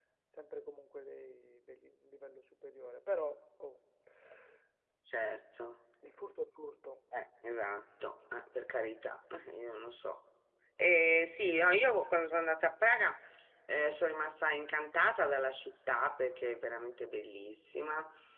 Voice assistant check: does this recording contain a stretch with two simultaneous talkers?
No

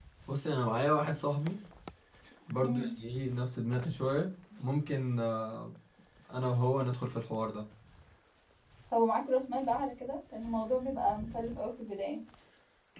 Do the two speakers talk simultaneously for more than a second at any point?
No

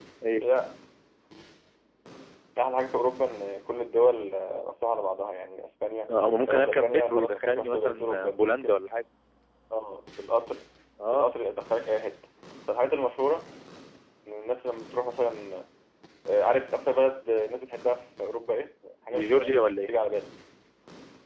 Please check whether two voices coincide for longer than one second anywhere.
Yes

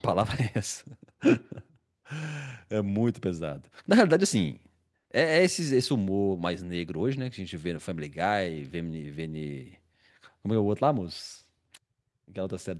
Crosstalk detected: No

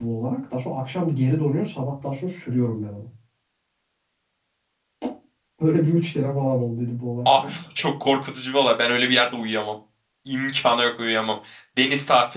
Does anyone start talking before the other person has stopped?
No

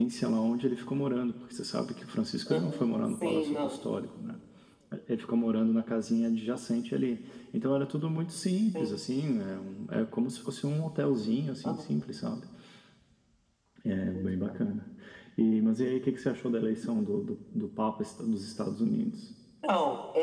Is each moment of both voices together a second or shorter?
No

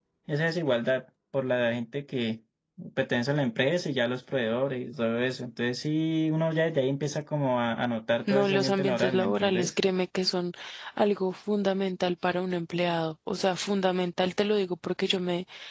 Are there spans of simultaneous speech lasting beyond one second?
Yes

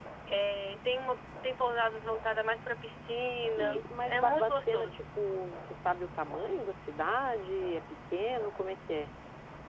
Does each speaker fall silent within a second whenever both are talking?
No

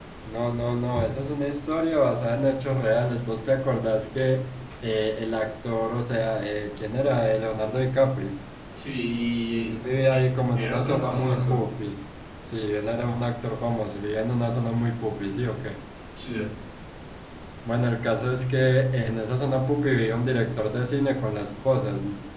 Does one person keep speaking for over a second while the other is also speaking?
Yes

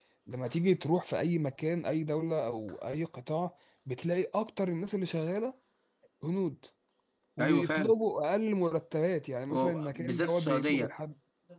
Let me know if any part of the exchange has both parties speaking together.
Yes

